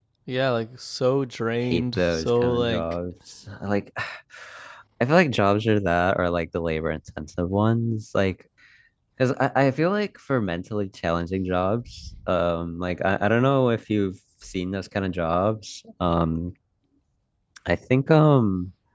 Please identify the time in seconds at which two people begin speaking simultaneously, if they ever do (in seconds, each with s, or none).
1.6 s